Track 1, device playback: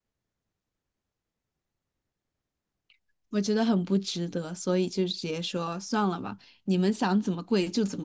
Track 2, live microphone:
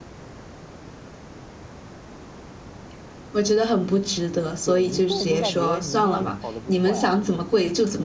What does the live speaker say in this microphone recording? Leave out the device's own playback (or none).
对你，我感我感觉你应该考的不错呀，